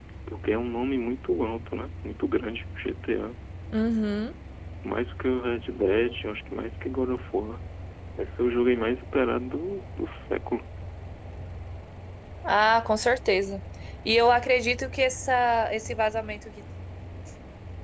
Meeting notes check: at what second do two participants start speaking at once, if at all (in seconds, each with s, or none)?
none